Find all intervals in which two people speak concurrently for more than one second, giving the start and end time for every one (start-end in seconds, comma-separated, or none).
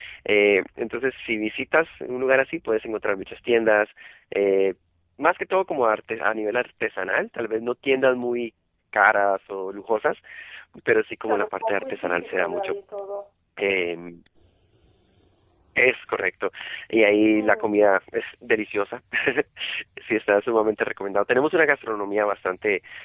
11.3-12.8